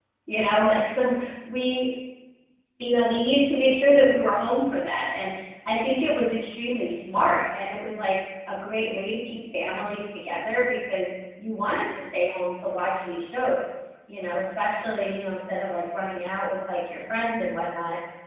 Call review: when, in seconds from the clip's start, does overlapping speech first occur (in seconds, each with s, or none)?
none